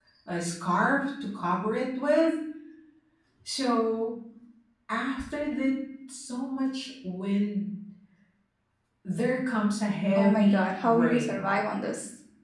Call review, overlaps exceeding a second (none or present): present